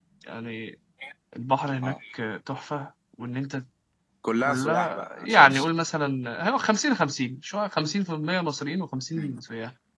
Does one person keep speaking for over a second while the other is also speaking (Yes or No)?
Yes